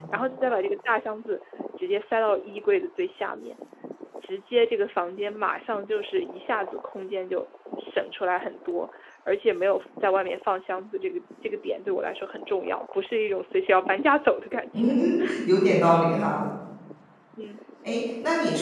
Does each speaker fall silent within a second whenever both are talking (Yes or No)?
Yes